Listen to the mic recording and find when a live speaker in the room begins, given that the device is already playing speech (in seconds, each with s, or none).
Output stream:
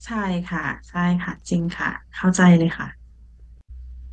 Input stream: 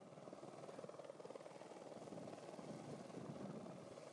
none